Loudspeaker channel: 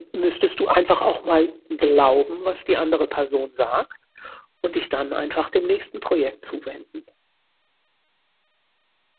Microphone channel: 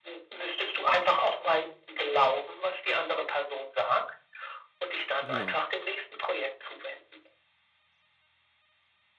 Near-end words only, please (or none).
Ja,